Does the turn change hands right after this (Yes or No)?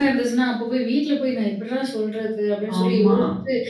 No